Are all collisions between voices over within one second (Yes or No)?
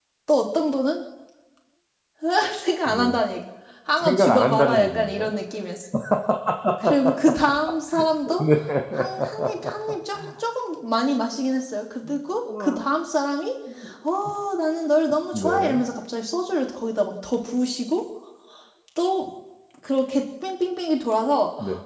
No